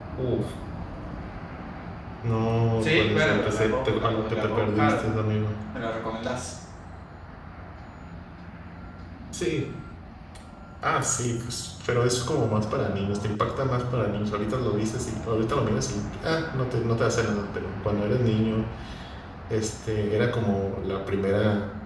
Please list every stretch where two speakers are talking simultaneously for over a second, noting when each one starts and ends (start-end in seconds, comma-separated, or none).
2.8-5.2